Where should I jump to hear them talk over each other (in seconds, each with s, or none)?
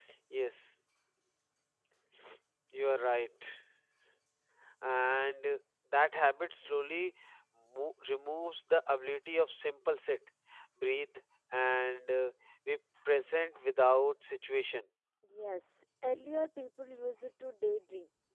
none